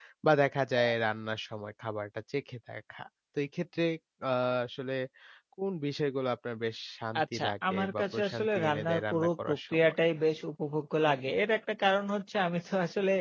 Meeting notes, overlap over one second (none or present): present